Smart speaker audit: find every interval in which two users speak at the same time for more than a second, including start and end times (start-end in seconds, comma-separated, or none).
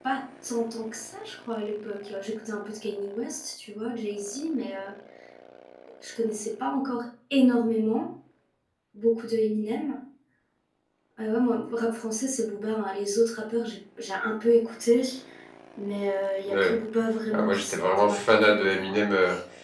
17.3-19.0